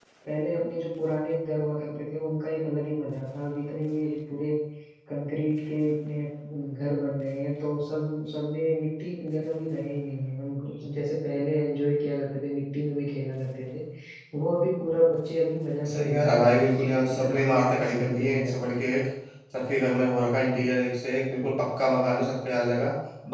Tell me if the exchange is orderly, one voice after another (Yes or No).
No